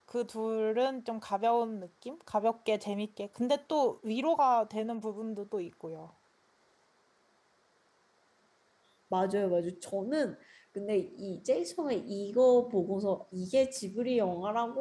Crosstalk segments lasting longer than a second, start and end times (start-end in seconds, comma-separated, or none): none